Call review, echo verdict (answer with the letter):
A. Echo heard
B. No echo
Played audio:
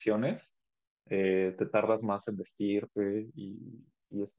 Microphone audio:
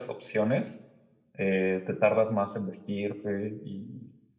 A